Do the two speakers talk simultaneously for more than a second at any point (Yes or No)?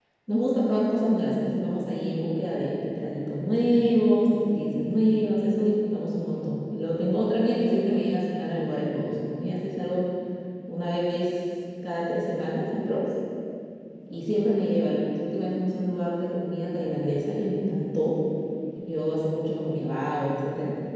No